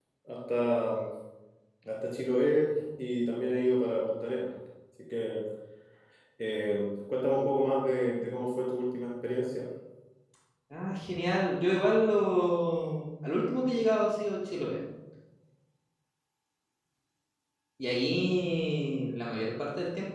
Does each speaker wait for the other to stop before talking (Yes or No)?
Yes